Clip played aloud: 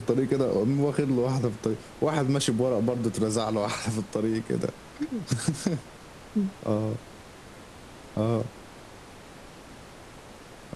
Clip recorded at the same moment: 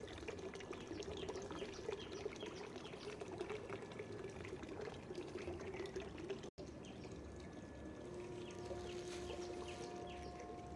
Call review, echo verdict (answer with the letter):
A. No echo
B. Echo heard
A